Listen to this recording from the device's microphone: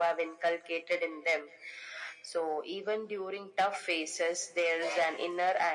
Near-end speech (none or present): none